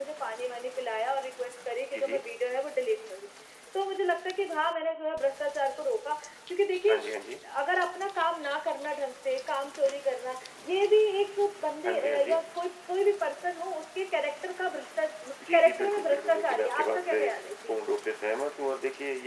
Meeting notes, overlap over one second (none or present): present